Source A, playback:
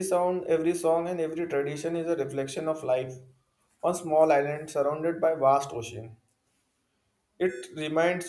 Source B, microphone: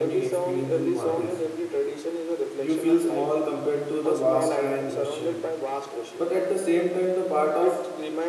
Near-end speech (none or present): present